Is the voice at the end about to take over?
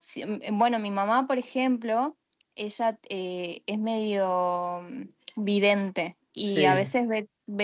No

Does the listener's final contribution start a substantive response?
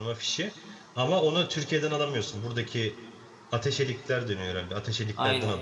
Yes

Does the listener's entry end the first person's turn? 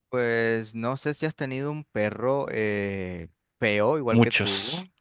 No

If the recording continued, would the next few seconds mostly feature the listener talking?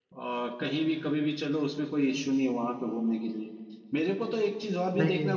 No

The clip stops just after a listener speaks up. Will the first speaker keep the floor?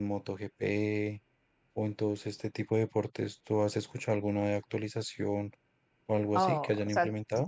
No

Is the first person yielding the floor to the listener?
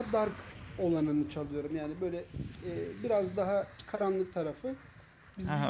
Yes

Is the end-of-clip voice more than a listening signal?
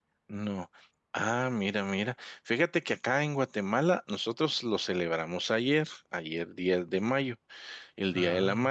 No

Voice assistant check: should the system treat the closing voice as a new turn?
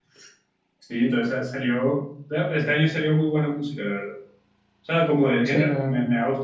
No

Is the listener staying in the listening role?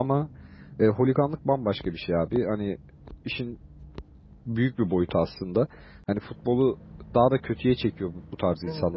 Yes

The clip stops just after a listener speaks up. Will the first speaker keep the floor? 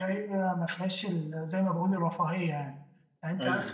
Yes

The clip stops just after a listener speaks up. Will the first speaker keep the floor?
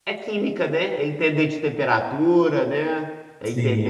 No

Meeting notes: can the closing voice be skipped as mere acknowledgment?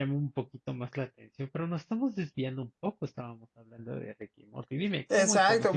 No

